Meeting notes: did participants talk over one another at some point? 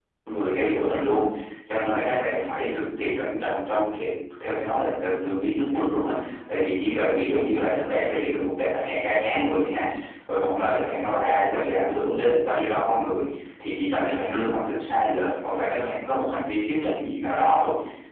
No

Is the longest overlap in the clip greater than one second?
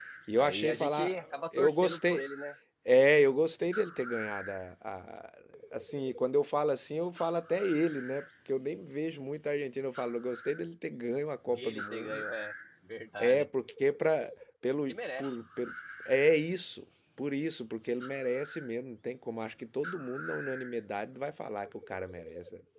Yes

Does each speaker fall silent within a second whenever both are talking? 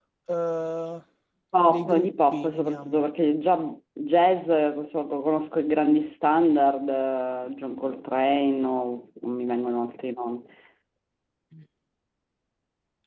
No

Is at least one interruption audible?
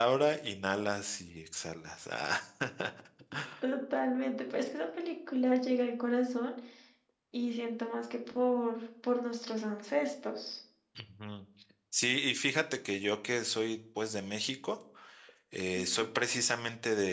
No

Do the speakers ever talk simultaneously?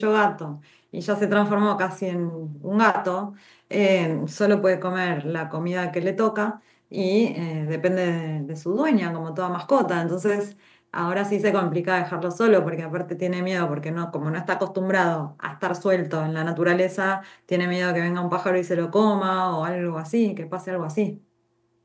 No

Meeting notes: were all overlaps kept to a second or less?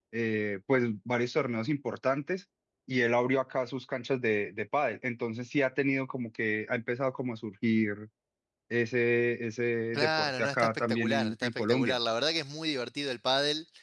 No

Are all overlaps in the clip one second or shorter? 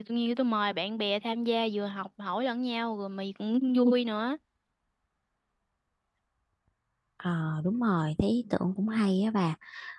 Yes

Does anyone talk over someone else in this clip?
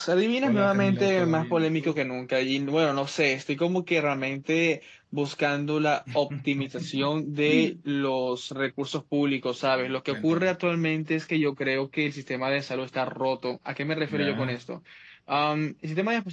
Yes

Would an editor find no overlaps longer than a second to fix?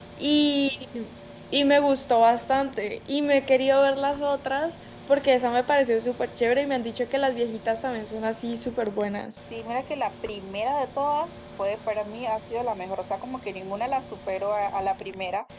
Yes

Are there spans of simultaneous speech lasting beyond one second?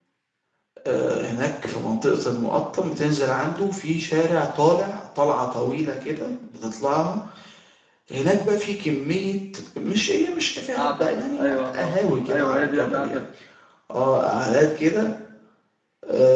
Yes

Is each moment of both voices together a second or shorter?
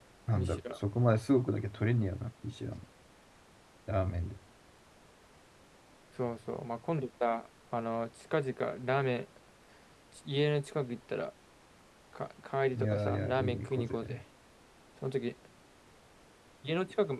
No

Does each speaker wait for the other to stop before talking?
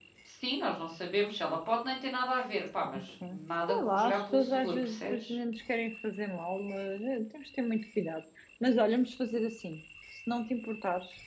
No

